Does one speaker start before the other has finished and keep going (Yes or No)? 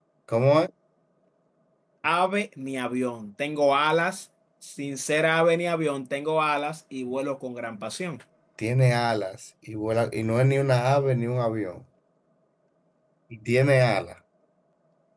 No